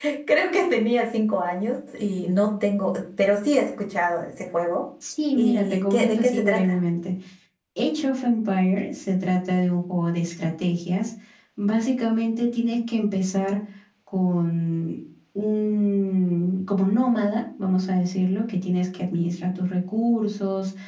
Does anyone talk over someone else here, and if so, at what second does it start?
5.3 s

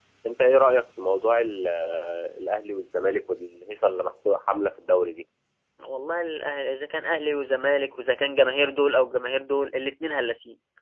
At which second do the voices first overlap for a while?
none

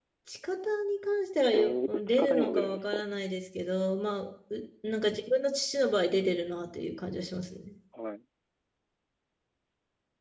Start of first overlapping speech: 1.5 s

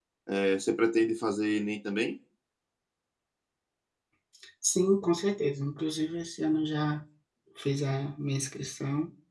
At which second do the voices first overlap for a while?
none

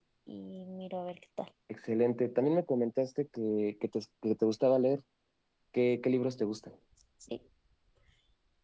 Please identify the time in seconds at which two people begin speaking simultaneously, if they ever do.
none

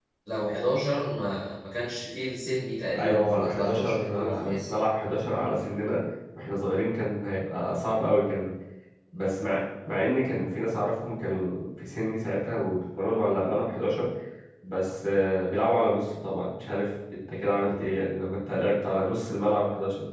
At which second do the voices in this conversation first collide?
2.9 s

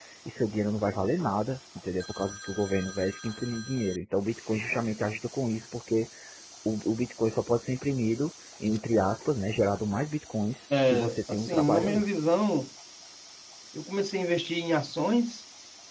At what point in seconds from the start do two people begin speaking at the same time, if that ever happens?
10.7 s

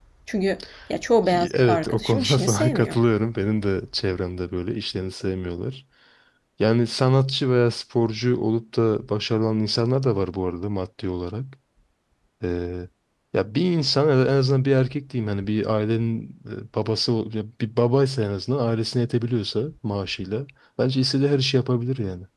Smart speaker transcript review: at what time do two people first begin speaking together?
1.3 s

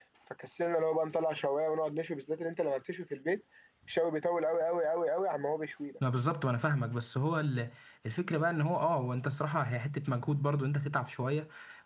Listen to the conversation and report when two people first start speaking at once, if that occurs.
none

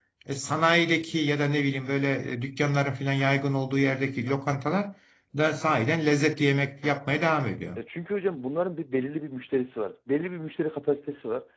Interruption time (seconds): none

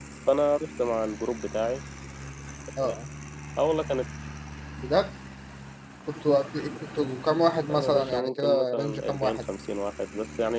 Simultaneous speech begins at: 7.7 s

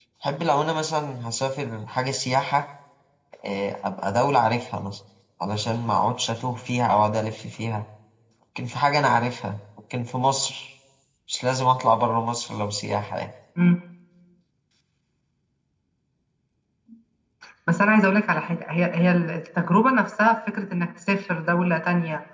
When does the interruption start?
none

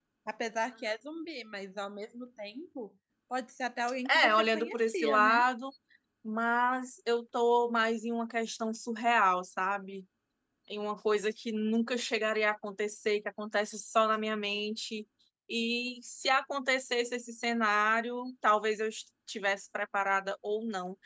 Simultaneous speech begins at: 4.0 s

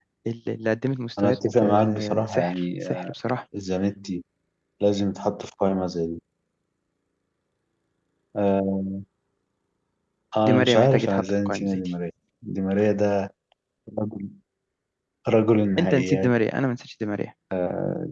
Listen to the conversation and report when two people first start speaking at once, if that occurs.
1.2 s

